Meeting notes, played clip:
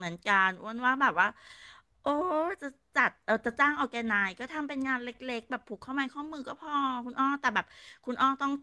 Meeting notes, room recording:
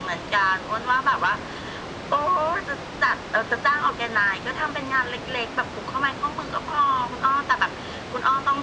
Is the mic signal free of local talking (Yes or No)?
Yes